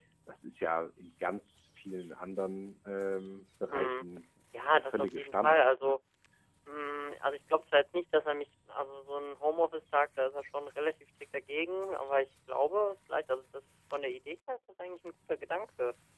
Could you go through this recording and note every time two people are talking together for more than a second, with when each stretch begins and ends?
4.7-6.0

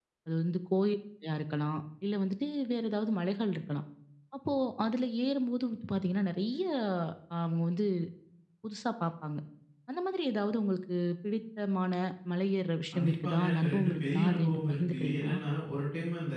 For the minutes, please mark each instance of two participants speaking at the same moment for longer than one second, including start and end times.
12.9-15.4

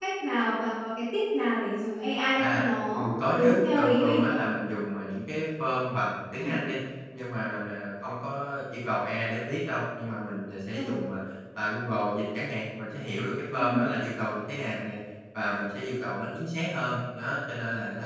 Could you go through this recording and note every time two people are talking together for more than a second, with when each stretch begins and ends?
2.3-4.4

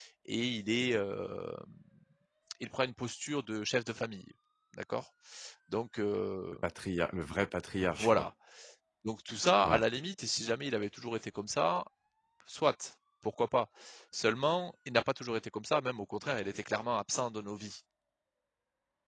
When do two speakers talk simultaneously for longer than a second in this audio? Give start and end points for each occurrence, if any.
none

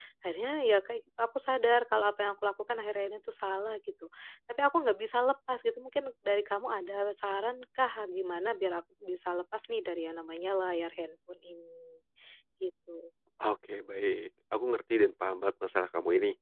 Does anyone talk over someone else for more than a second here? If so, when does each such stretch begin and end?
none

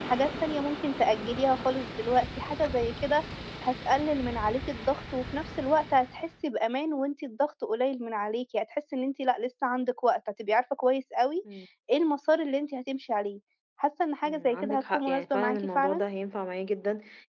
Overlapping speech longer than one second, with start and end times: 14.2-16.0

